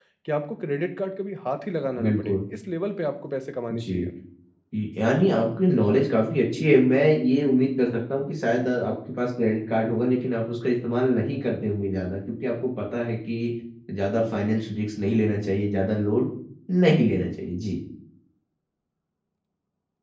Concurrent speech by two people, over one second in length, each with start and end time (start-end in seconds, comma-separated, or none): none